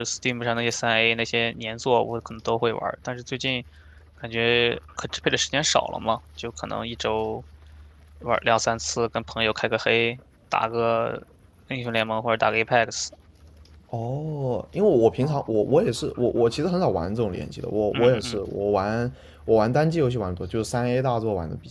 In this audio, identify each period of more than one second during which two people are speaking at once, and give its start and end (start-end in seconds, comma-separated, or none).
none